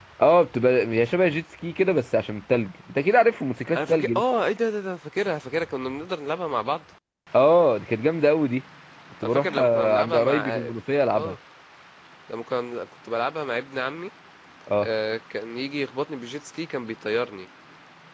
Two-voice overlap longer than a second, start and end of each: 9.2-10.6

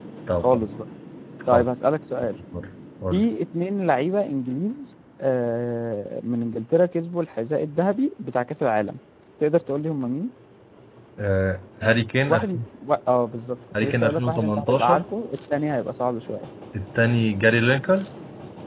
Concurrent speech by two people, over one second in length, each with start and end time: 13.8-15.0

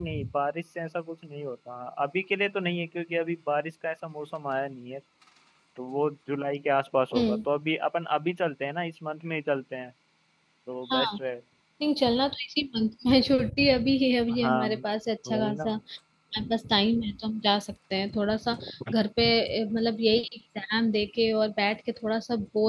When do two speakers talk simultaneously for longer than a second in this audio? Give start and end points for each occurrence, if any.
none

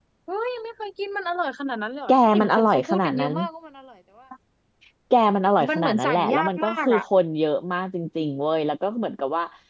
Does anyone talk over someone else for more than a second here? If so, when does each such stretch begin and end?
2.1-3.3, 5.7-7.0

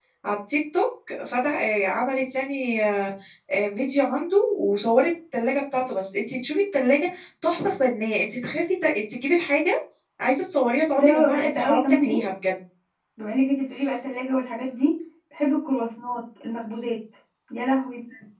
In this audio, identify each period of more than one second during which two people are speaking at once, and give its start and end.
11.0-12.2

